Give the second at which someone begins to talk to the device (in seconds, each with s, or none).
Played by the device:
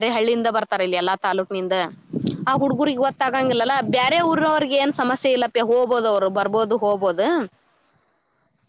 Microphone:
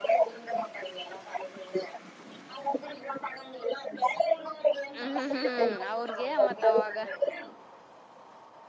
5.0 s